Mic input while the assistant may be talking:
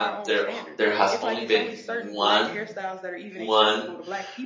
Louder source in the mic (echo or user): user